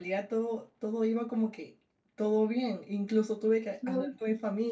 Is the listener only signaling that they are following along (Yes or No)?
Yes